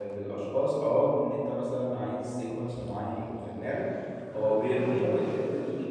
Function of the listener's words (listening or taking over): listening